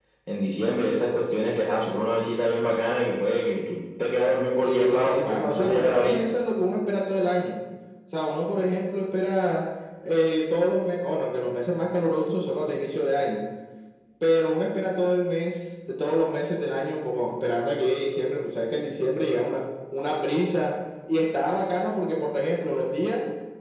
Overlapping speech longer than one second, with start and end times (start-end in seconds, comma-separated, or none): 4.6-6.3